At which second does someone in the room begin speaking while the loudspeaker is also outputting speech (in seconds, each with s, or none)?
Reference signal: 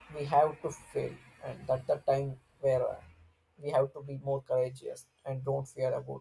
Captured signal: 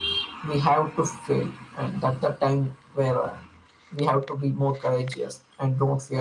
none